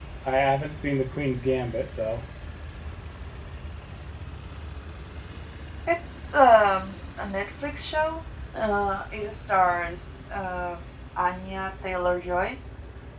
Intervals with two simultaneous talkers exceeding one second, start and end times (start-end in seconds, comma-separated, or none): none